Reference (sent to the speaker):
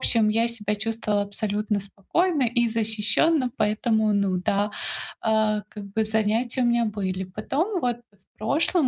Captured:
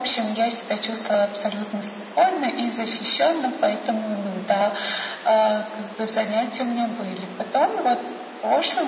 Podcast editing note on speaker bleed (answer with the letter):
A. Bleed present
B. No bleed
A